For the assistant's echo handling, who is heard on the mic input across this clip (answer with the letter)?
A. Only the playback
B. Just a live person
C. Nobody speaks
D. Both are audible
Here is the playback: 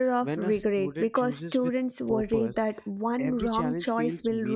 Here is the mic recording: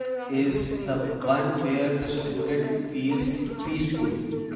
D